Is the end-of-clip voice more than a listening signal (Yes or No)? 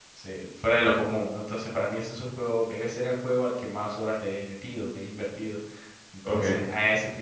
No